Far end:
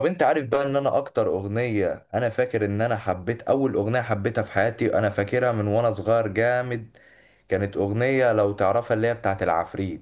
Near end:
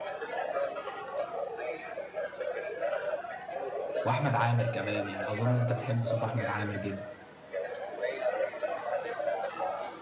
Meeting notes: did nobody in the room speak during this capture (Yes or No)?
No